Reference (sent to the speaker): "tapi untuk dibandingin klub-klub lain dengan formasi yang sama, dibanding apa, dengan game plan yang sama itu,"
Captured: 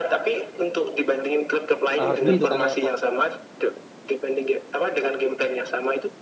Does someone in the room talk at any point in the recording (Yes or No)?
Yes